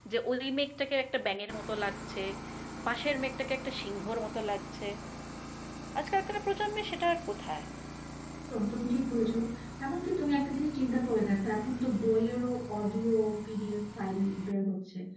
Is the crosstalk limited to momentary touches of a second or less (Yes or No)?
Yes